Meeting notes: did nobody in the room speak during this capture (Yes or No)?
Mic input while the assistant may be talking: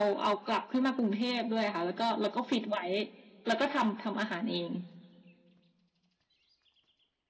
Yes